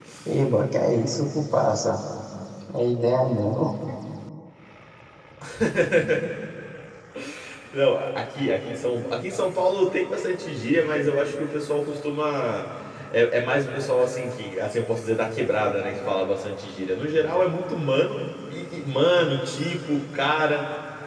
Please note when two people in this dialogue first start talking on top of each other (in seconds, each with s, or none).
none